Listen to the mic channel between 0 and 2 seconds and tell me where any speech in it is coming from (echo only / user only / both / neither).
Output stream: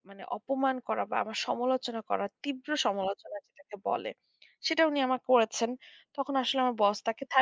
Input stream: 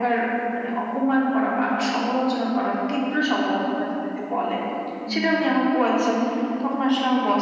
echo only